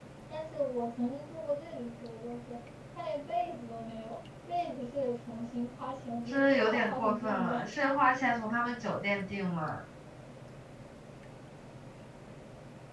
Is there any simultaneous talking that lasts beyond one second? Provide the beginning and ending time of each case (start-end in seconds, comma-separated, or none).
6.3-7.6